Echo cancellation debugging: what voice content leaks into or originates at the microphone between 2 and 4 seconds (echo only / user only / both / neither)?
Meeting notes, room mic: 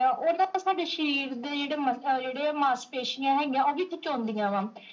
echo only